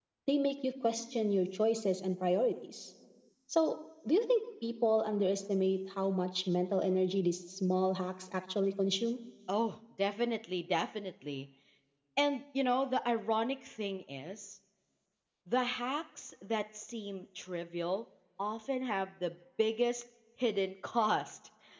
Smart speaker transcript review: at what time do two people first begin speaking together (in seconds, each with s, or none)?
none